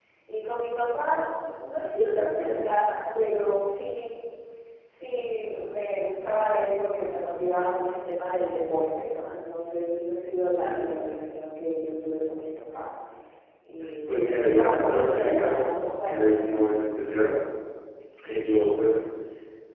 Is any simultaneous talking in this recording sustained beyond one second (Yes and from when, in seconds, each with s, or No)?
Yes, from 14.1 s